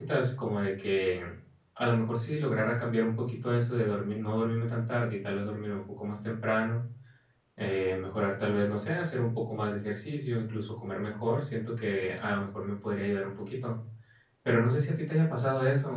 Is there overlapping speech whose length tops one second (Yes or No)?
No